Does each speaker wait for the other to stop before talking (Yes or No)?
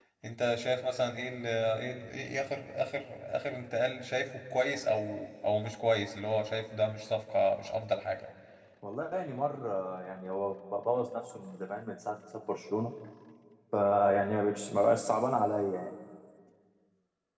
Yes